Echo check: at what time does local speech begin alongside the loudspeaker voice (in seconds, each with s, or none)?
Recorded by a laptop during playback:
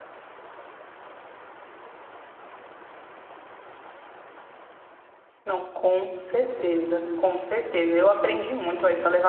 5.4 s